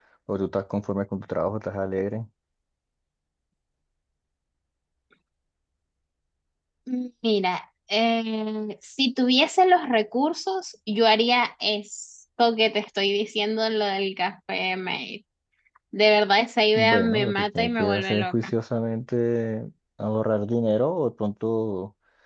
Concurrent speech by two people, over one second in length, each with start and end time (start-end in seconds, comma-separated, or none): 16.8-18.5